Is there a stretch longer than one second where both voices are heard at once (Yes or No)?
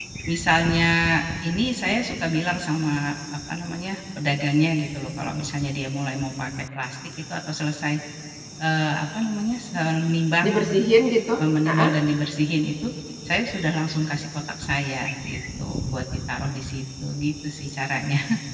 No